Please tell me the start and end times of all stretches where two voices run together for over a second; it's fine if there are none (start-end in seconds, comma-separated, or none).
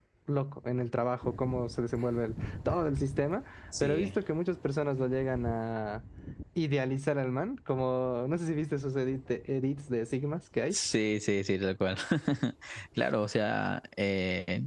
none